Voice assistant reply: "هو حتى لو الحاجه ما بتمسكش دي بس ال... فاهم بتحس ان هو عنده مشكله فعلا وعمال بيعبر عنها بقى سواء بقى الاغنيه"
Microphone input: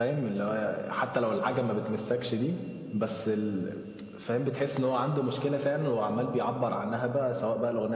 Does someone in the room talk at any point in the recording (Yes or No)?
No